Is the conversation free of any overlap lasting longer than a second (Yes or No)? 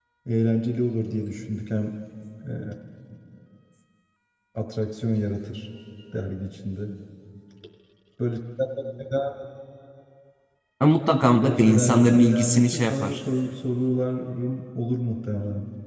No